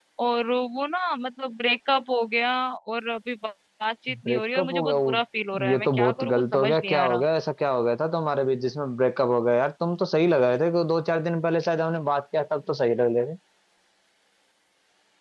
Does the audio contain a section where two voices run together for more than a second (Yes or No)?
Yes